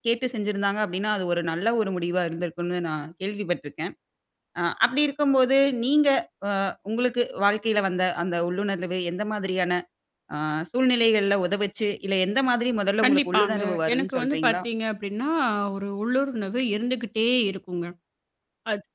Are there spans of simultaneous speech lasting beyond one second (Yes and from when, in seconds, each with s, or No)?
Yes, from 13.0 s